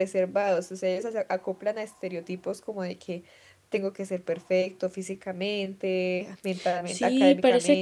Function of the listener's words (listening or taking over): taking over